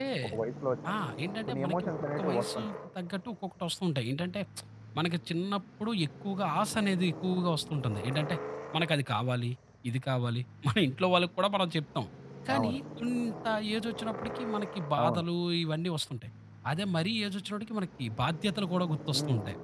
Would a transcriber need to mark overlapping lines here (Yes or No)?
Yes